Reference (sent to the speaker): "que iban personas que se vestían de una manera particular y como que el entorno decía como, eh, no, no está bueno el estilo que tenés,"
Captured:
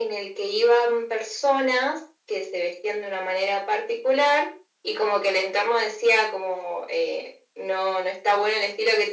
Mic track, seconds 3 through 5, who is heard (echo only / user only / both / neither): echo only